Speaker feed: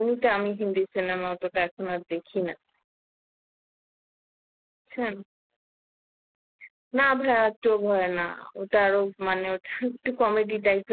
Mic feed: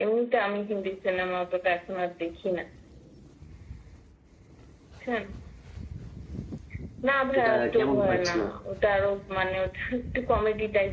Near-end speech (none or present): present